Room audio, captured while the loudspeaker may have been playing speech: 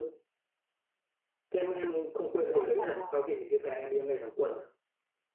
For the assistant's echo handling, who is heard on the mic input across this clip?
both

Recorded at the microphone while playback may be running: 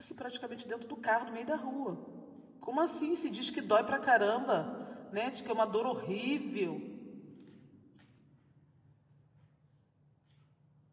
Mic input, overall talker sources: user only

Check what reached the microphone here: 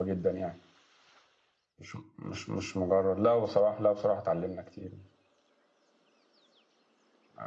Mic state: user only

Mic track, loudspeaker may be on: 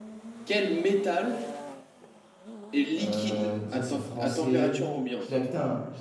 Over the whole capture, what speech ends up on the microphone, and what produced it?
both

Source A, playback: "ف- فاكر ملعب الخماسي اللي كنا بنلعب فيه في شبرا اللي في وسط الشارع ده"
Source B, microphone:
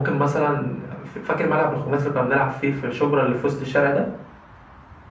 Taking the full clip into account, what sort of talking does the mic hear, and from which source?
echo only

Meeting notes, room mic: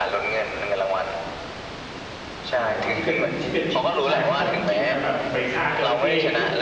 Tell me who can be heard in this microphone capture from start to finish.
both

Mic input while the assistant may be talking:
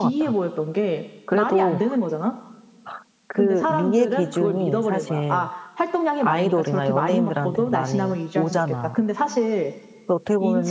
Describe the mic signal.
both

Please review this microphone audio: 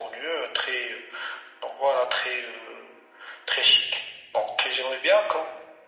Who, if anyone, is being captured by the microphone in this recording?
echo only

